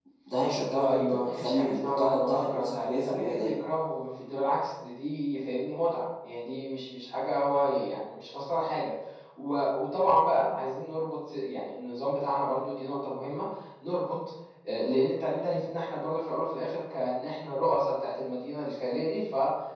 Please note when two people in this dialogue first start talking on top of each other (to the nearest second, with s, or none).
1 s